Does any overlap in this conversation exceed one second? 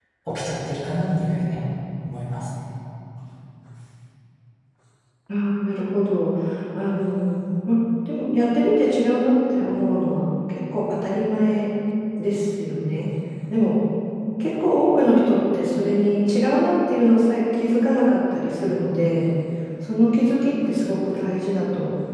No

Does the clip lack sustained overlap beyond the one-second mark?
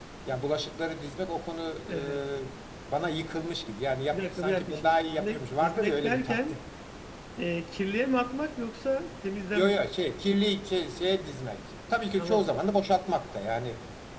No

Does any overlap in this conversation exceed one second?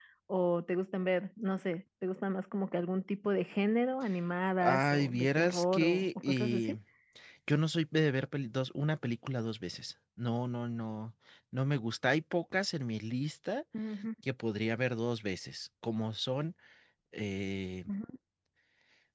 Yes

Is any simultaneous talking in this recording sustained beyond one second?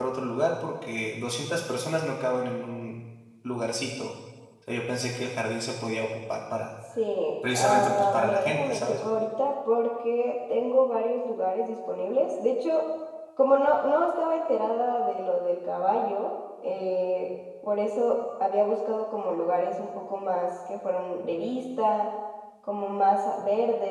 Yes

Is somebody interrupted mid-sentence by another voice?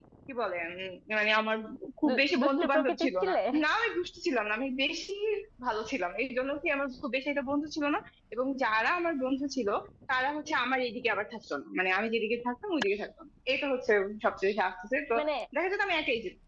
Yes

